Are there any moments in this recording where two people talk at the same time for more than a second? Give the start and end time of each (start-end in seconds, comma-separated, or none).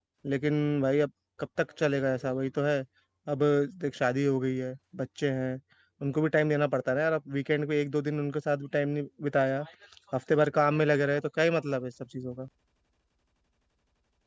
none